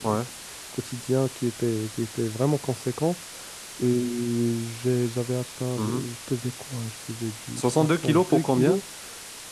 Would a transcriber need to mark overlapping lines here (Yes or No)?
Yes